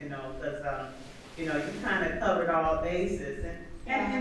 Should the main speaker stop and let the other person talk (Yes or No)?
No